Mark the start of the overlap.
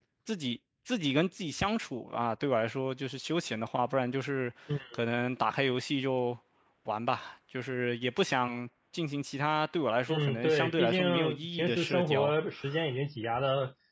10.1 s

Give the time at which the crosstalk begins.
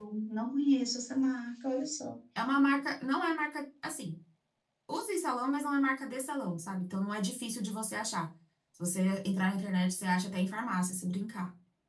none

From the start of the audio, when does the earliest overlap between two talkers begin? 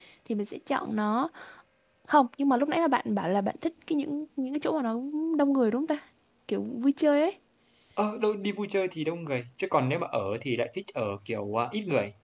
none

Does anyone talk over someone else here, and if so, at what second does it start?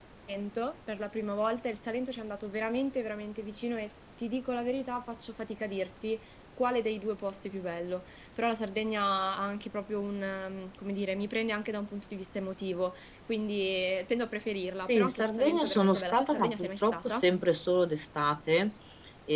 14.9 s

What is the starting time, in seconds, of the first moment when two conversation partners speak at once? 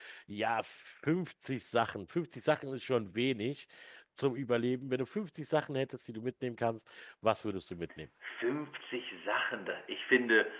none

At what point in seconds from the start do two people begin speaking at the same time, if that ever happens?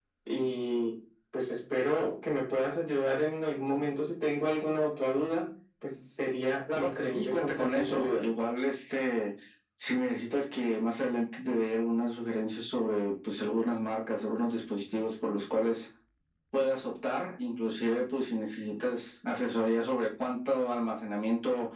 6.7 s

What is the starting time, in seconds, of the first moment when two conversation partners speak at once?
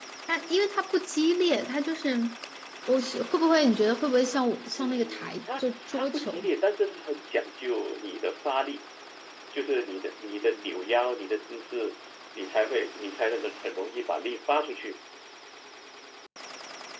4.8 s

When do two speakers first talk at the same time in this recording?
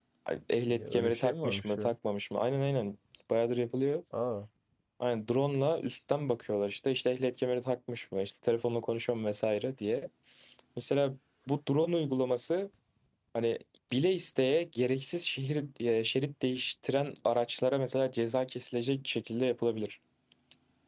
0.7 s

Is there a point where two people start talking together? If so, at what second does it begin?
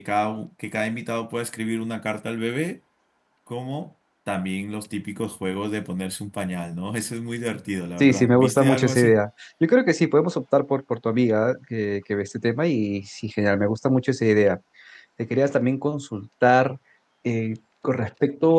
8.0 s

